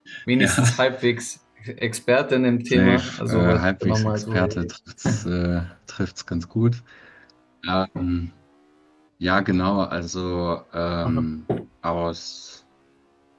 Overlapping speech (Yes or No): Yes